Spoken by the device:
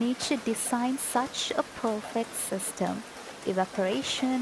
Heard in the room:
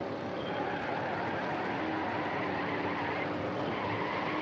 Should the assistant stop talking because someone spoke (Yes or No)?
No